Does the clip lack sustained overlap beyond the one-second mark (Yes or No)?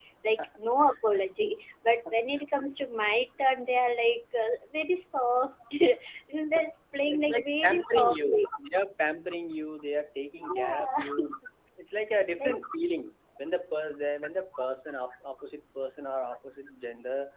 No